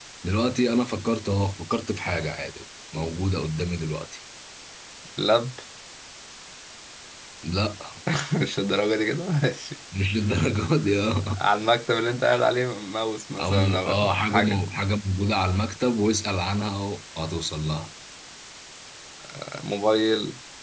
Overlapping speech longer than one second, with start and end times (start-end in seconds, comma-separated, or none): 13.4-14.6